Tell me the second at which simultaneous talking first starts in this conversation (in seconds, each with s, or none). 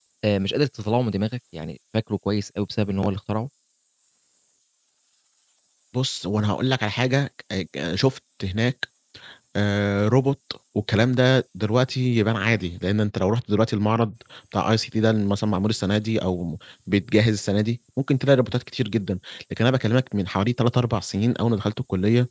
none